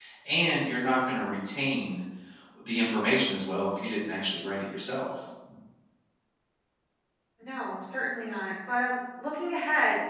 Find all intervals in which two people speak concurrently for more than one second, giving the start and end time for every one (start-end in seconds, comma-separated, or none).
none